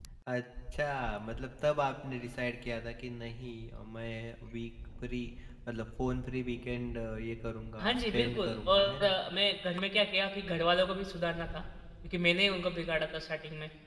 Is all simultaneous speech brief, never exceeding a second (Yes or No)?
No